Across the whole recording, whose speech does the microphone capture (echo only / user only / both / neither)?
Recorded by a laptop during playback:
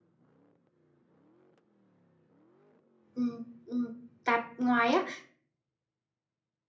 user only